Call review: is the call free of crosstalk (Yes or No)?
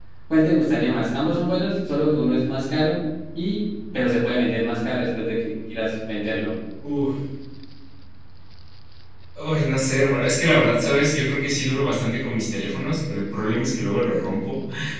Yes